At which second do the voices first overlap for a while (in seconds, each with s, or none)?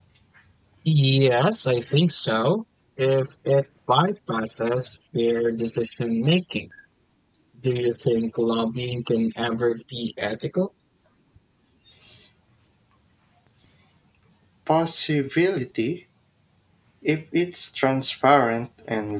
none